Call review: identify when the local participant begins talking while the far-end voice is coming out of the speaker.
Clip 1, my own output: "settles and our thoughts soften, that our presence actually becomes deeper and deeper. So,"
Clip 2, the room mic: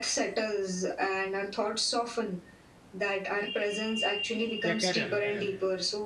4.6 s

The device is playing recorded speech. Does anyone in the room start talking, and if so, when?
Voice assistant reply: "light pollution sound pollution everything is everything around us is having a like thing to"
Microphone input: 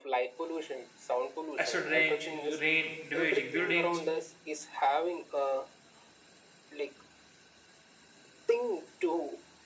1.6 s

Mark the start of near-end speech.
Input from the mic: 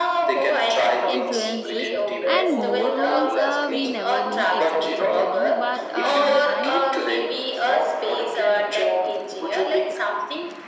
1.1 s

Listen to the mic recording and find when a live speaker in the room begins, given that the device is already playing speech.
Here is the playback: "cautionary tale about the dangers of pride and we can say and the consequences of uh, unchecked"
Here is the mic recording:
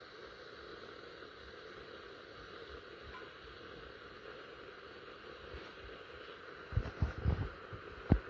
none

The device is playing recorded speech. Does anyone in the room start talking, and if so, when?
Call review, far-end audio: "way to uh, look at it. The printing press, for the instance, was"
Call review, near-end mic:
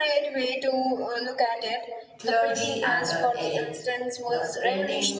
2.2 s

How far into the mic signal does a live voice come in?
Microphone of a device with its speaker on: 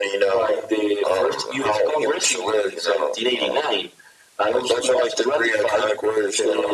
none

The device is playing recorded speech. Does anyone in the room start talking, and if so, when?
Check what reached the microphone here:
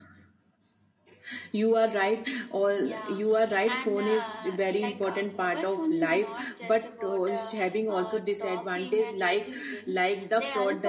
2.8 s

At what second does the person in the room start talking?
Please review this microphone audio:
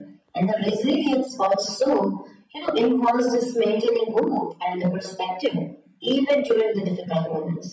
none

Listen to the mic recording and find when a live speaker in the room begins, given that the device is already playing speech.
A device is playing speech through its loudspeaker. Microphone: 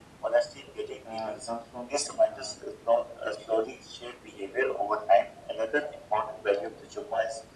1.0 s

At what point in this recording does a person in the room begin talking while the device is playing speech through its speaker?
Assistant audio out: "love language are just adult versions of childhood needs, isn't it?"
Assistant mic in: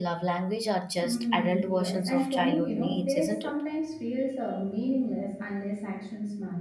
1.0 s

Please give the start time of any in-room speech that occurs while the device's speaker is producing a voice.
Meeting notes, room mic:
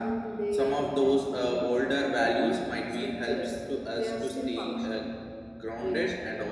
none

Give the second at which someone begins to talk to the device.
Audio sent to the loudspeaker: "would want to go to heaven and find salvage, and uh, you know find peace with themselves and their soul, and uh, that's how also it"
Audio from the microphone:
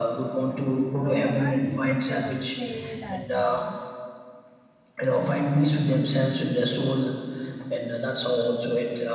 0.9 s

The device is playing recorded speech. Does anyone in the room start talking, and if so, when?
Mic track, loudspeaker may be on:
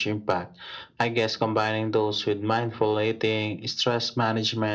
none

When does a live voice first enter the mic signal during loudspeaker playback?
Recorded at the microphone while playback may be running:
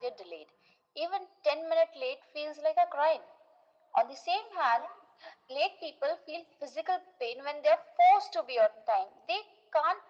none

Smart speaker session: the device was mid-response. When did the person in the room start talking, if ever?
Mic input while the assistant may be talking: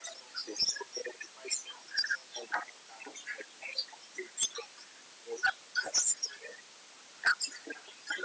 none

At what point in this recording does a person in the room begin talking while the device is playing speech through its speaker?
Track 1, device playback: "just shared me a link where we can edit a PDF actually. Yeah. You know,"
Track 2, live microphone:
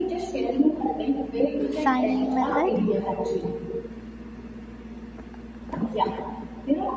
1.7 s

